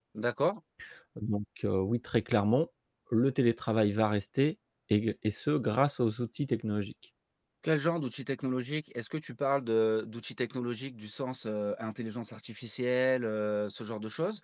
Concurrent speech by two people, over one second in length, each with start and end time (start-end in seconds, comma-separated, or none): none